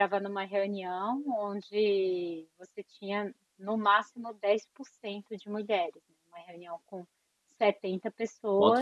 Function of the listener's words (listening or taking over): taking over